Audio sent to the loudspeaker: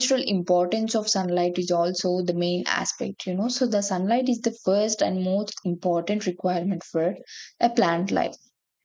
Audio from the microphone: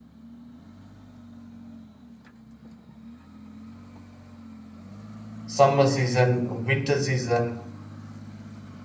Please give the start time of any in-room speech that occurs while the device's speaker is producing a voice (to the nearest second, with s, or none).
5 s